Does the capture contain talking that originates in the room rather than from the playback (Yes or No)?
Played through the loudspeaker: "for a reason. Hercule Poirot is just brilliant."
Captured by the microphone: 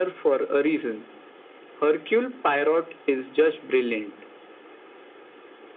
No